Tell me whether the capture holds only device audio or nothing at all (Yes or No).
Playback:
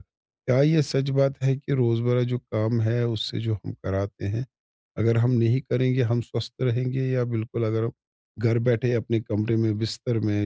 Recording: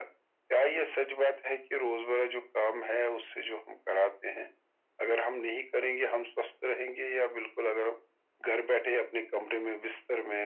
Yes